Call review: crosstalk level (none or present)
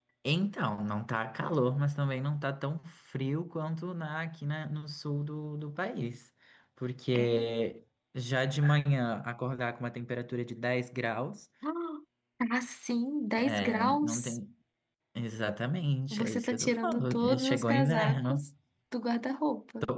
present